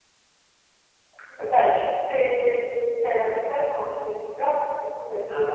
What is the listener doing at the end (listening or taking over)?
listening